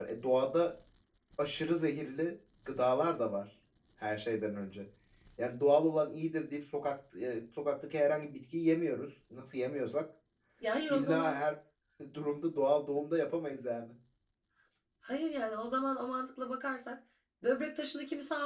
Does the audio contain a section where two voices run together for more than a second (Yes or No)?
No